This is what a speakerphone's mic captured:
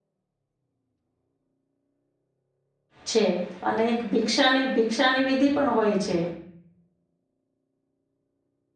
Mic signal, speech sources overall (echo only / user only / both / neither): user only